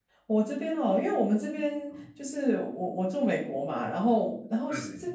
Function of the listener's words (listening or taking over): listening